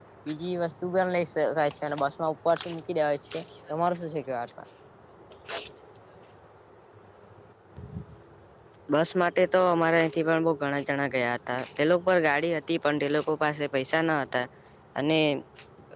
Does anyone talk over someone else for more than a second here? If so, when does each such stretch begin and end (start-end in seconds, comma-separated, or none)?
none